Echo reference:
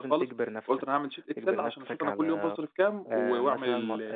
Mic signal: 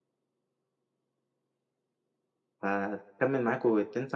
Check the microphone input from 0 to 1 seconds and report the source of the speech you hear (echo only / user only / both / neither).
neither